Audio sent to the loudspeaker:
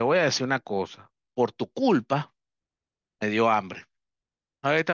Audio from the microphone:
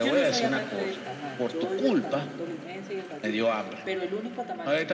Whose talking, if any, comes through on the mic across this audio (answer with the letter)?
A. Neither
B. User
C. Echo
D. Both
D